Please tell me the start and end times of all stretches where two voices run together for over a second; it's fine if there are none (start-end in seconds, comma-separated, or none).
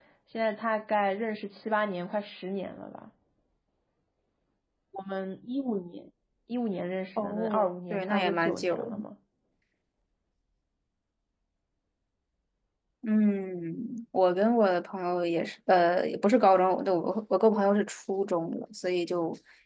7.2-8.9